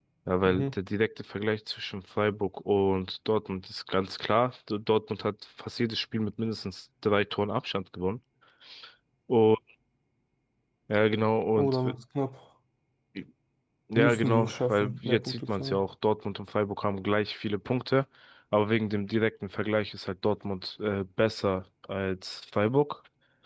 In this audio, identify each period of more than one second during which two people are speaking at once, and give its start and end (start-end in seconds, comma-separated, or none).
14.0-15.8